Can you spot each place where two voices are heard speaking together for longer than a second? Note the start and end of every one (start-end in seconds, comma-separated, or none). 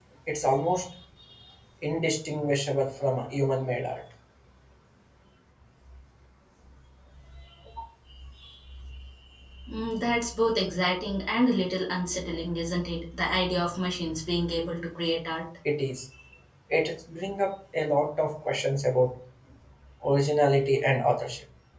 none